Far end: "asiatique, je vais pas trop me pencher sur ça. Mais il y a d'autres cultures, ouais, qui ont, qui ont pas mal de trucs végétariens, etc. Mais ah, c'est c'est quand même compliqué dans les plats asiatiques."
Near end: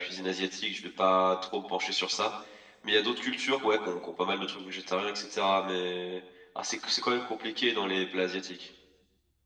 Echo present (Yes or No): Yes